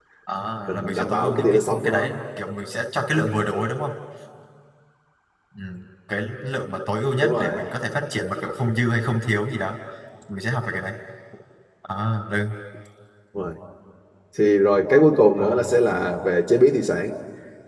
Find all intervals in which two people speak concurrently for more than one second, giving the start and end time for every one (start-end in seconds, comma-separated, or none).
0.7-2.1